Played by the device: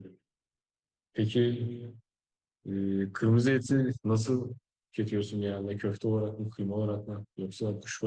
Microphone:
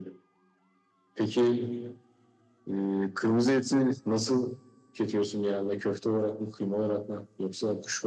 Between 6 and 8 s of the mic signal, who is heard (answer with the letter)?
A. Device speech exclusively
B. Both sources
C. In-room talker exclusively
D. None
A